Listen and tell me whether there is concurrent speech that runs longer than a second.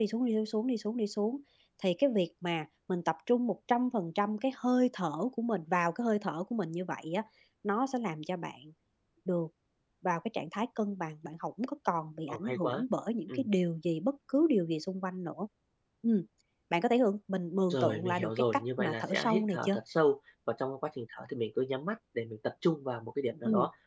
Yes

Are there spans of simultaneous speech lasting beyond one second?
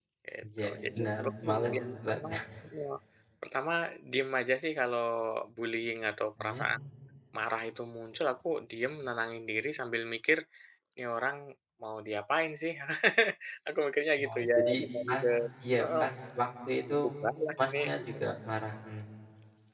Yes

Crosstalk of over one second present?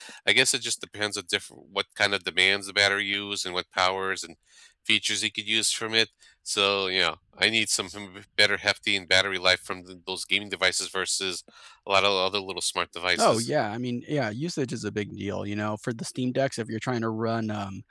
No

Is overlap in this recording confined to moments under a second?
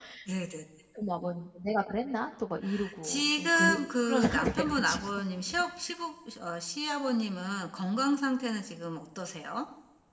No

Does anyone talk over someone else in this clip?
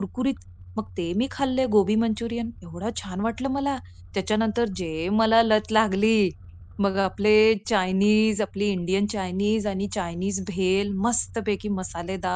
No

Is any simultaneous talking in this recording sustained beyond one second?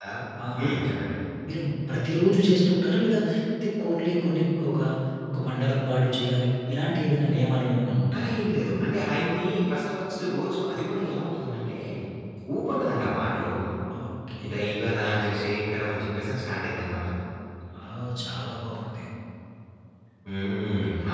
No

